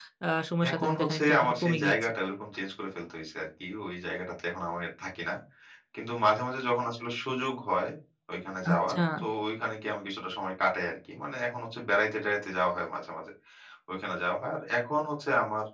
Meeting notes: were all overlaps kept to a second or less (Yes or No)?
No